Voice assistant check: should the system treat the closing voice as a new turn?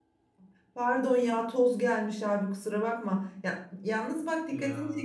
No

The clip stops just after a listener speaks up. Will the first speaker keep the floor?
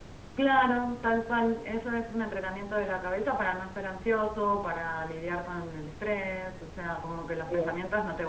Yes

